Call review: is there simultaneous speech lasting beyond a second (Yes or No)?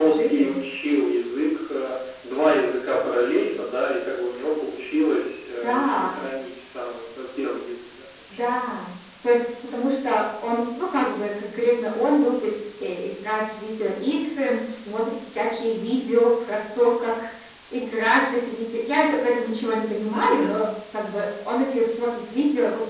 No